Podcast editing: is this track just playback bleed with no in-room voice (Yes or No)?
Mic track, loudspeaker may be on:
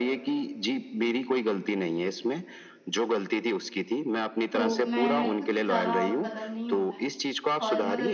No